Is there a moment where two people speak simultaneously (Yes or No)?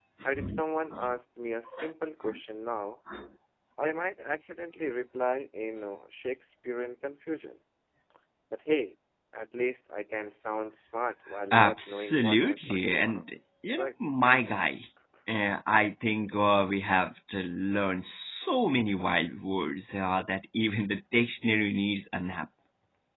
Yes